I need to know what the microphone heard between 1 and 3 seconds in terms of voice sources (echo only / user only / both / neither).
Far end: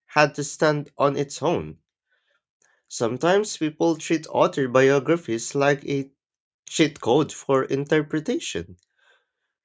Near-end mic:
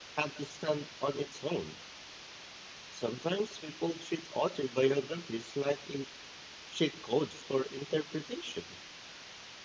echo only